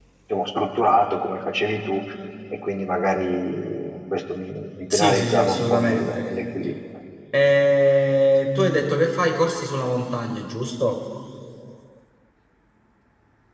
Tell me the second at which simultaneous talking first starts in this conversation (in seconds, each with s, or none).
4.9 s